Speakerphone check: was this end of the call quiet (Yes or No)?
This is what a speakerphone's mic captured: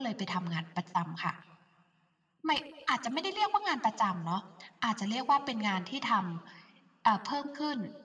Yes